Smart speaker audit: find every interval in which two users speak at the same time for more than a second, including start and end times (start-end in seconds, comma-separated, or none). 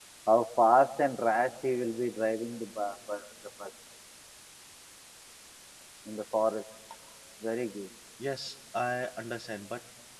none